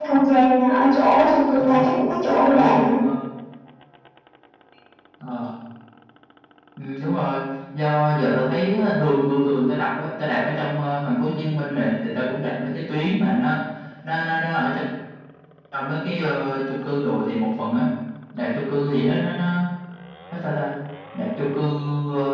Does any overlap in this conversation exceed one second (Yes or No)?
No